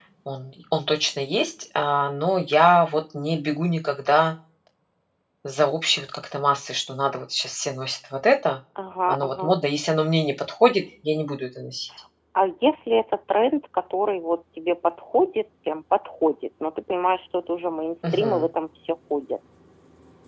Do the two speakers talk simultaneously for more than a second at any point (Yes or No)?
No